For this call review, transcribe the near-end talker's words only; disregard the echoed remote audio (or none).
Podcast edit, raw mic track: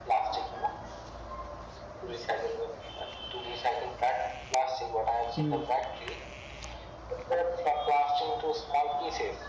hmm